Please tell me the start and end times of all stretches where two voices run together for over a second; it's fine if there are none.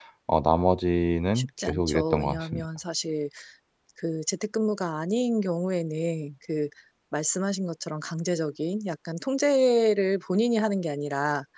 1.4-2.6

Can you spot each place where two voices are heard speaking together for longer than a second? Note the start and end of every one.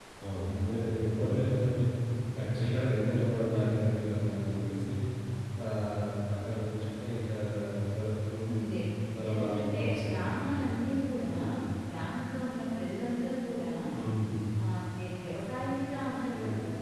9.3-10.7

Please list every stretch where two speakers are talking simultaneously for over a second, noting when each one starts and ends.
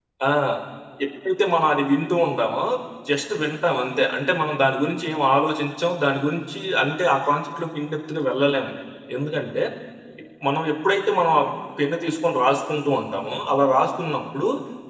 none

